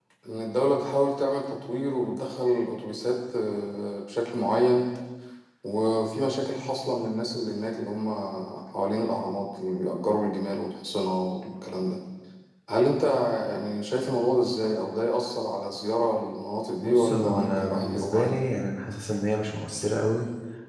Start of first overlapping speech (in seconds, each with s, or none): 16.8 s